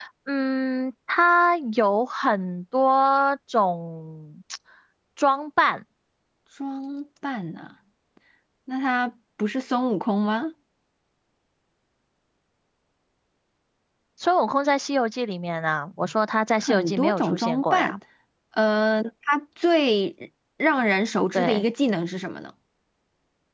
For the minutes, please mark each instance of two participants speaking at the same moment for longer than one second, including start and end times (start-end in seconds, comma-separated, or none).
16.6-17.9